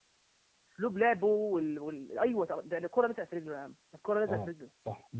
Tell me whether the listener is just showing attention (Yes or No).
No